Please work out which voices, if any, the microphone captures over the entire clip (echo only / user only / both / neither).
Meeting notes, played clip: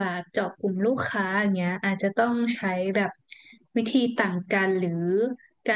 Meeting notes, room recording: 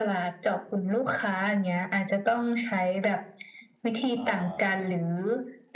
both